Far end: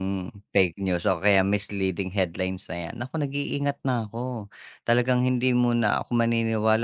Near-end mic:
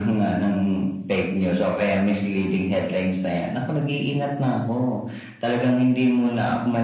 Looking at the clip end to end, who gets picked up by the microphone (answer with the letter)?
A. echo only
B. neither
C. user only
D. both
A